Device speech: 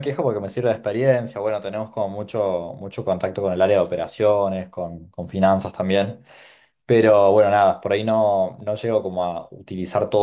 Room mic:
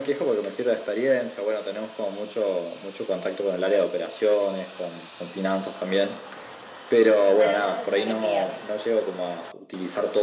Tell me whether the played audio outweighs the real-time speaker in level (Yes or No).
Yes